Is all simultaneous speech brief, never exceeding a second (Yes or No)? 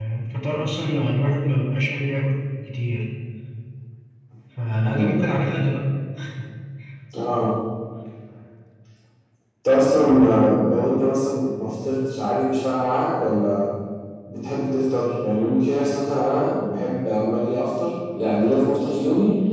Yes